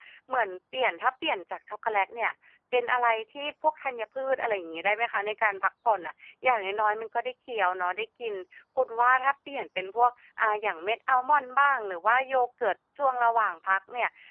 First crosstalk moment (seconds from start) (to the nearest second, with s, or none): none